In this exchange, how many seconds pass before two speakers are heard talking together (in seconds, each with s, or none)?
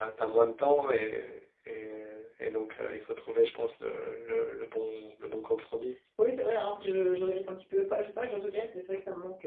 none